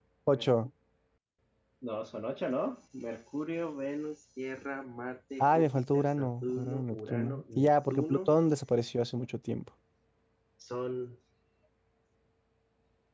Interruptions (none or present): present